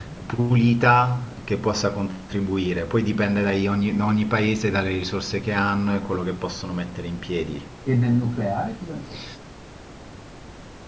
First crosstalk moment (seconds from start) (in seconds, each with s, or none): none